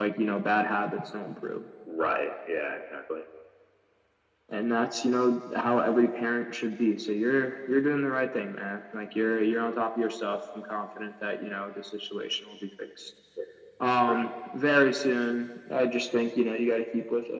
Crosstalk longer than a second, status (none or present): none